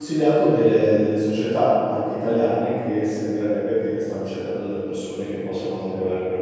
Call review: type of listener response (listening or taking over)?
listening